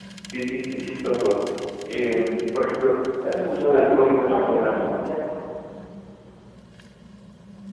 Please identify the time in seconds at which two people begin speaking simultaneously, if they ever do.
3.4 s

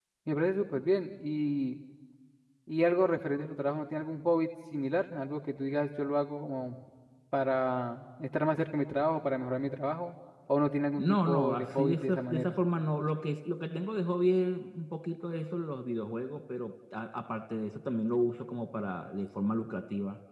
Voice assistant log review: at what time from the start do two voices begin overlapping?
11.0 s

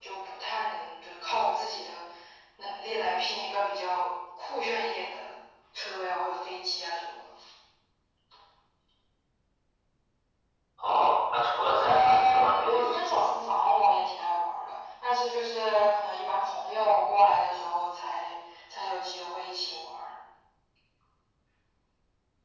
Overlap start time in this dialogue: 11.8 s

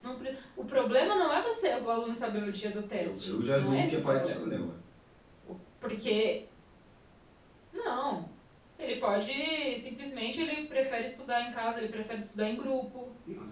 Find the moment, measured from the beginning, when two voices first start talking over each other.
3.0 s

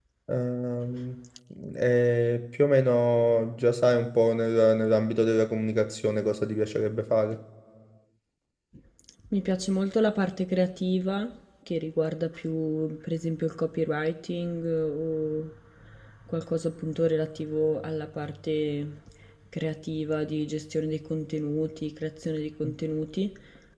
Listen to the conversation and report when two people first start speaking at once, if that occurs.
none

